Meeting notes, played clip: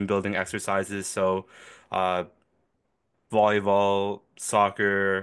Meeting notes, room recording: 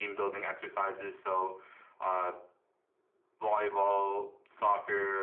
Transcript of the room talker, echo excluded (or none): none